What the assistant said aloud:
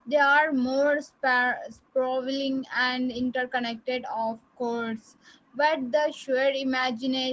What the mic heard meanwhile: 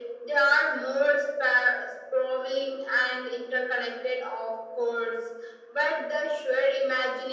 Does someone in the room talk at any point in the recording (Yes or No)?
No